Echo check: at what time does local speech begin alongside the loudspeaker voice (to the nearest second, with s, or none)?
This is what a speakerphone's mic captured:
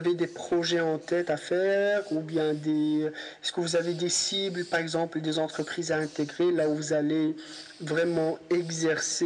none